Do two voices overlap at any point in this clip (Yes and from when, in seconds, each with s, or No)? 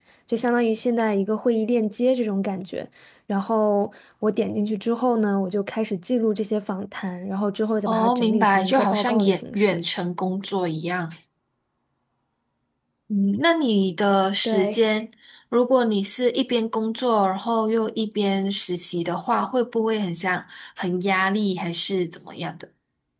Yes, from 7.8 s